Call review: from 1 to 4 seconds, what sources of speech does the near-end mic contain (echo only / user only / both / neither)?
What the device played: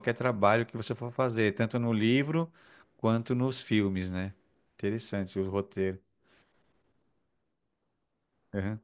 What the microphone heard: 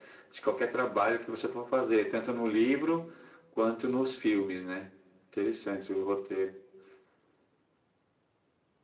echo only